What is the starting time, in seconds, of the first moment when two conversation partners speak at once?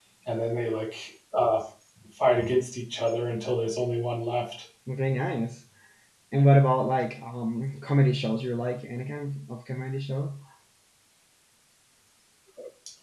none

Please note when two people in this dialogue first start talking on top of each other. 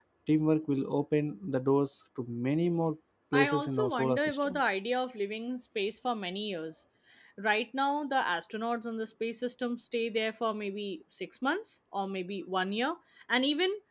3.3 s

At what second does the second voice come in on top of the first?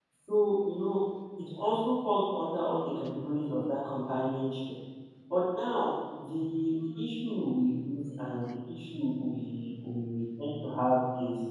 none

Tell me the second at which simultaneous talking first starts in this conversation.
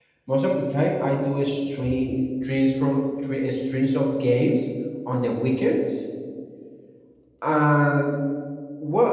none

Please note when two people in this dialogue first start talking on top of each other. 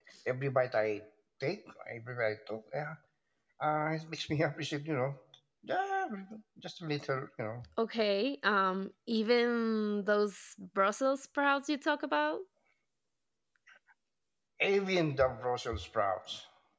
none

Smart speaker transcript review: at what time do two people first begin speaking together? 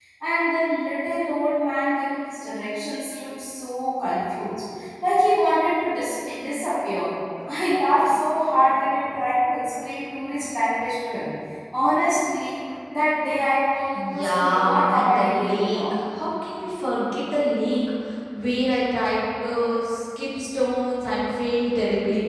14.0 s

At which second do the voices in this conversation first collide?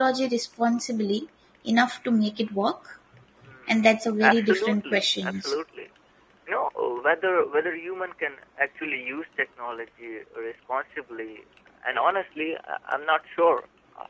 3.7 s

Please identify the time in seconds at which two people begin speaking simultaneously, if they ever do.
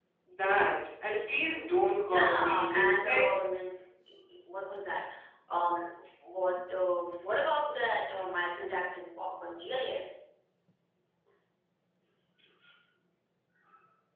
2.1 s

